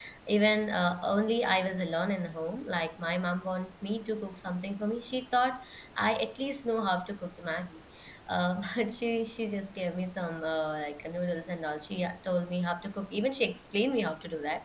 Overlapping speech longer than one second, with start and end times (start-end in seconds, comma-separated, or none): none